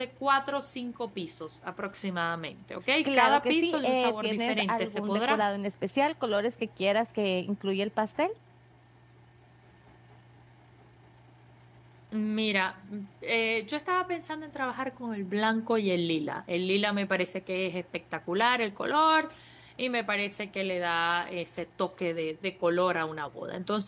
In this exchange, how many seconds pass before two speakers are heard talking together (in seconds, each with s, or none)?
3.0 s